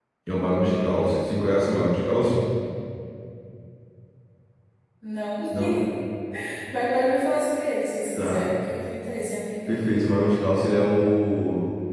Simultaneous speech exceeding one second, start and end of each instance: none

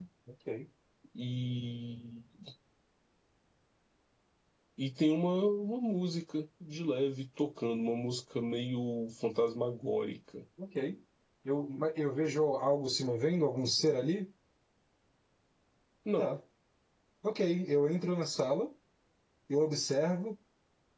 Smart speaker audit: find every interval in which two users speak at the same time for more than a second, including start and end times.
none

